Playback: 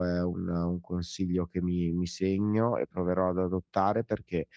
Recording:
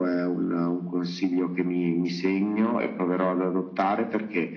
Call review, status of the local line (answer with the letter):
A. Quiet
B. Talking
A